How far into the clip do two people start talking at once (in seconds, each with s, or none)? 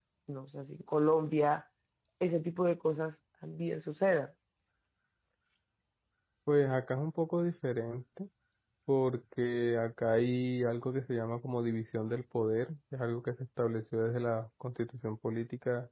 none